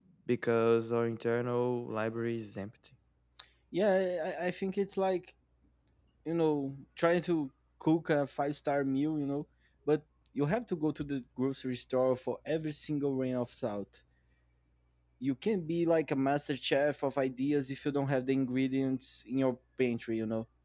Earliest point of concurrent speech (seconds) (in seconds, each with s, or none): none